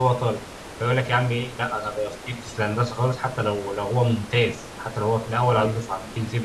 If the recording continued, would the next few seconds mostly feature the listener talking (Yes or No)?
No